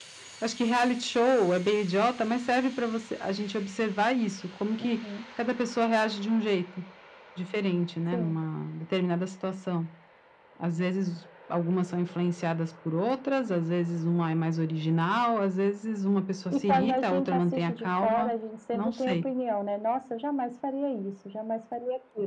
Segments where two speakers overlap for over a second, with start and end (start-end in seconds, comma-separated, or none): 16.5-18.3